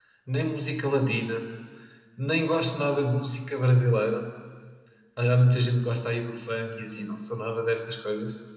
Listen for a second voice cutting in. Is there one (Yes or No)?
No